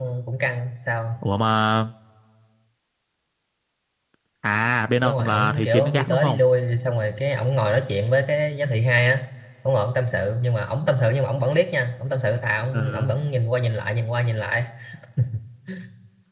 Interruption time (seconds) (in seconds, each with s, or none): 5.0 s